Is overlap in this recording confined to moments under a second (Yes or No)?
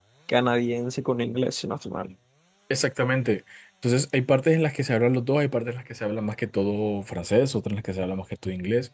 Yes